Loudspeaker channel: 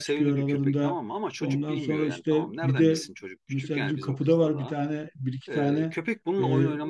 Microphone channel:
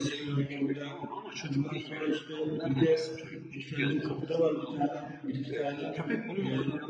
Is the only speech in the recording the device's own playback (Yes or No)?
Yes